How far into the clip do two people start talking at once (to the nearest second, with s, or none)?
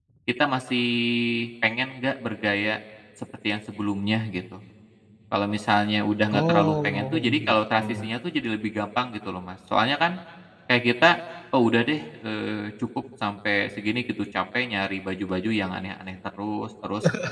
6 s